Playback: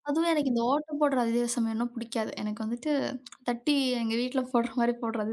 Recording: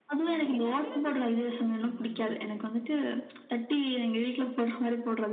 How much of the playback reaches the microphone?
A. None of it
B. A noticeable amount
B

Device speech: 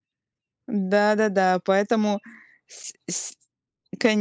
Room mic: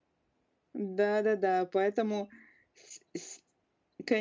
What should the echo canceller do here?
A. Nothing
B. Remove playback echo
B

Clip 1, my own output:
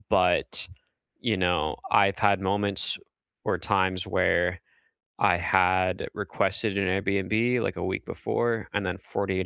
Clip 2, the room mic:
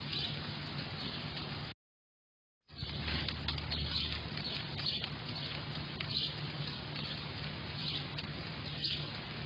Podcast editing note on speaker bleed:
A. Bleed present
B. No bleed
B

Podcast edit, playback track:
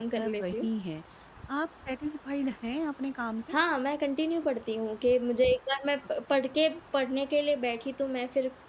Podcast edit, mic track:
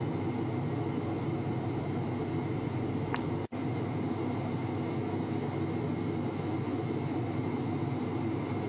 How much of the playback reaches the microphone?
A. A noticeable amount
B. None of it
B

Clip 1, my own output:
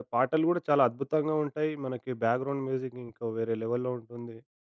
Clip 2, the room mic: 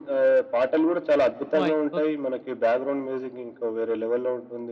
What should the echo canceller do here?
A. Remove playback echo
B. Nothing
A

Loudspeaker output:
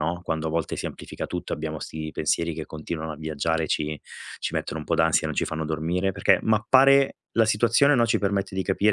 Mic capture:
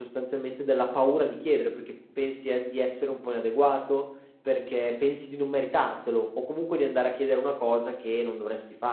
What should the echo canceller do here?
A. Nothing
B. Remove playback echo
A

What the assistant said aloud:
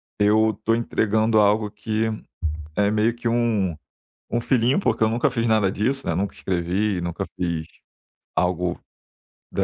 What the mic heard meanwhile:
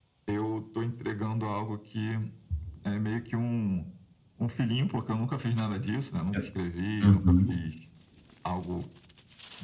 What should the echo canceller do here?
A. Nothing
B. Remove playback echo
B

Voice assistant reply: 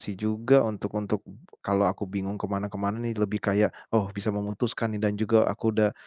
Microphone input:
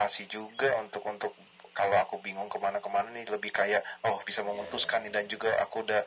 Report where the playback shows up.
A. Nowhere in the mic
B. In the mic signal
B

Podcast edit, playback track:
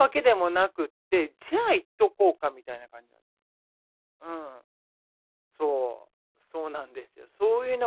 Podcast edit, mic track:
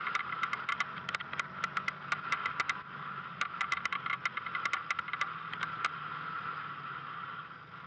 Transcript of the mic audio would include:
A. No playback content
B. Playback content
A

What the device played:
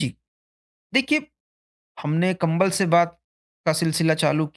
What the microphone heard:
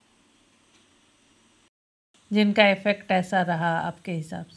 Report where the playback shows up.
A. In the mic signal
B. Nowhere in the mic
B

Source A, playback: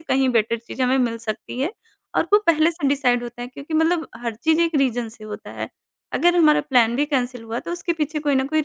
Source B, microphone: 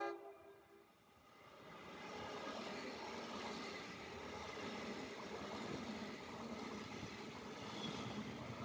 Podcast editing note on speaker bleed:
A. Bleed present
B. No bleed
B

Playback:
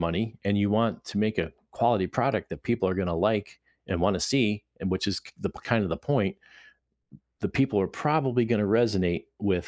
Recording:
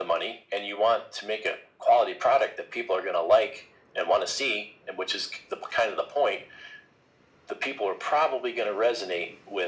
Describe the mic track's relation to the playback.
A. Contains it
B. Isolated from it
A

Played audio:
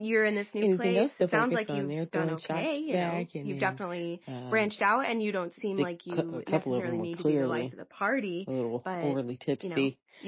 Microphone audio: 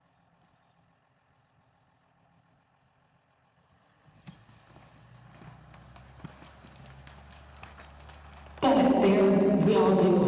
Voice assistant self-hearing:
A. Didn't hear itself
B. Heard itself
A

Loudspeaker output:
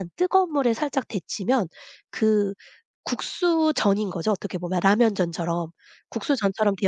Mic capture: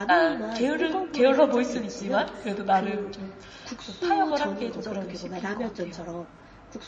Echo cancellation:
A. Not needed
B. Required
B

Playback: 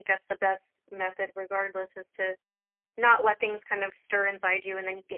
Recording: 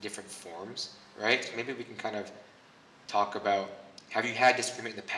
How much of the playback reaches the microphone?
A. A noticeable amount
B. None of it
B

